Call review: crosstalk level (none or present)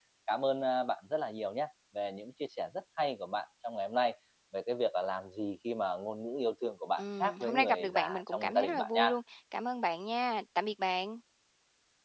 present